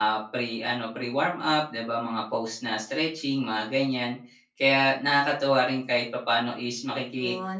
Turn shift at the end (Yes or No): Yes